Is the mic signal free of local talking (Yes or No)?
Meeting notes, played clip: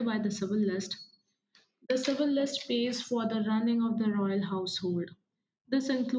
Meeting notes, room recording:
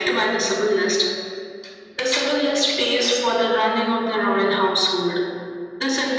Yes